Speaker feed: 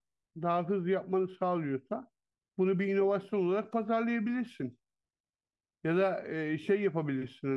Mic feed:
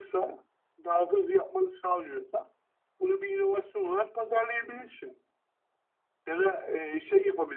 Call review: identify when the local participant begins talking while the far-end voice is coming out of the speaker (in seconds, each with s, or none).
none